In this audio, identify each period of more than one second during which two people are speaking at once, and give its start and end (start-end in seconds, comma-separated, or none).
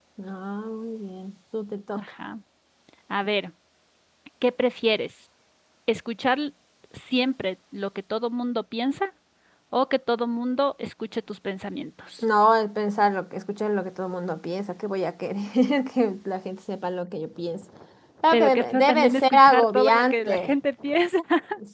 18.3-20.5